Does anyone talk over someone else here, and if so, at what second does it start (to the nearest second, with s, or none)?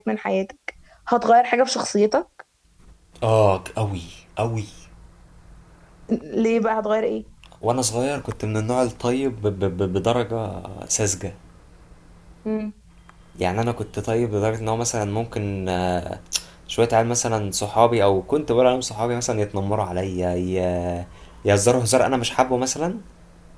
none